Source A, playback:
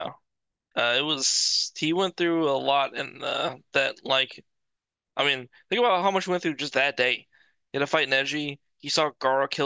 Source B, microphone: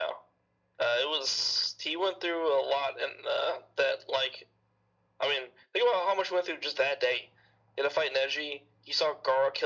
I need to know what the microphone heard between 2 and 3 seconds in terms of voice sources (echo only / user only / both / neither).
echo only